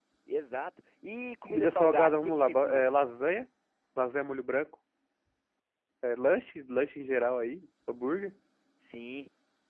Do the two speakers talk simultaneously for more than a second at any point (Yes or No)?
Yes